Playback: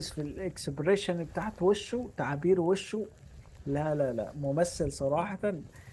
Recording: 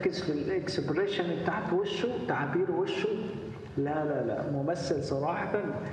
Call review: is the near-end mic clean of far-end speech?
No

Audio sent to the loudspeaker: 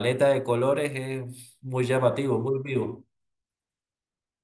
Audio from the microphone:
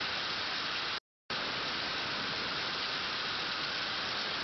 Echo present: No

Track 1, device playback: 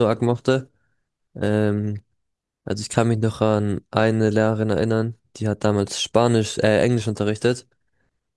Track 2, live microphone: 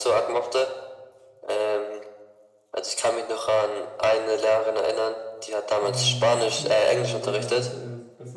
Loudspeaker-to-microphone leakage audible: Yes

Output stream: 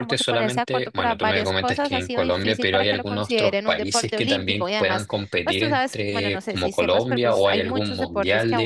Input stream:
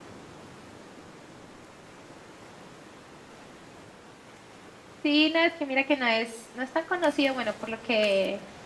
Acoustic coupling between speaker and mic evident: No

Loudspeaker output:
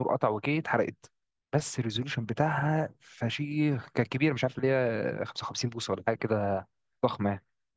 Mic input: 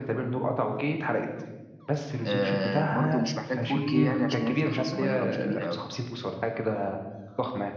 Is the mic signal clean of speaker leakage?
No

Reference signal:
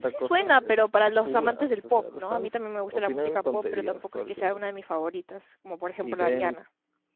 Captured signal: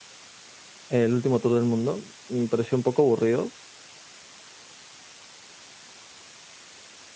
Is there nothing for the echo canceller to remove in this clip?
Yes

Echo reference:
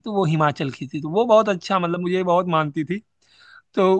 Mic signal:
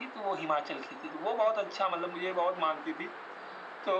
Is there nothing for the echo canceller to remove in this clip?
No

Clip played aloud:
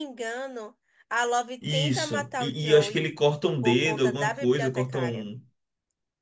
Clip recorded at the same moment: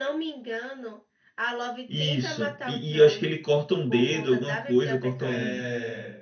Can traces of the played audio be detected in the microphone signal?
Yes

